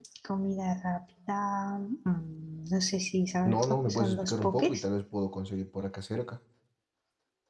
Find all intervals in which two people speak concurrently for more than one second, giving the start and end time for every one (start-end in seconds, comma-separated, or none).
3.5-4.8